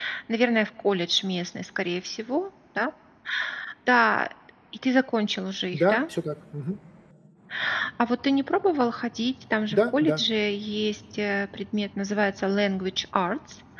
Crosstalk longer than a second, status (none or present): none